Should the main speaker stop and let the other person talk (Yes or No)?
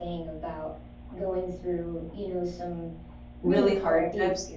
Yes